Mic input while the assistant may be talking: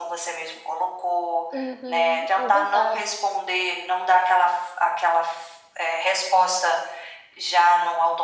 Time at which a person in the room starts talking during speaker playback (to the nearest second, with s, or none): 2 s